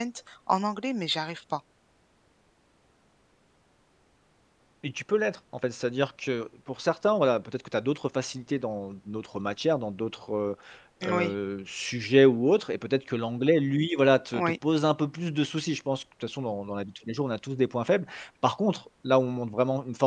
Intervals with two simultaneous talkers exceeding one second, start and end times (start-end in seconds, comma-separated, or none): none